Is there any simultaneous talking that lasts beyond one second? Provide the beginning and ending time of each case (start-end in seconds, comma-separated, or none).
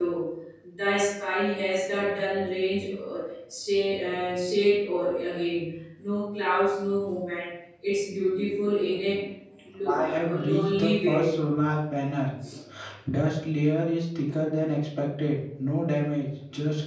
9.9-11.2